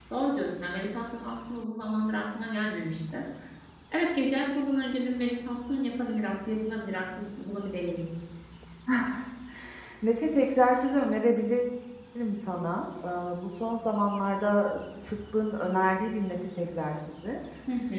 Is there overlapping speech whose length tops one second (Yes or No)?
No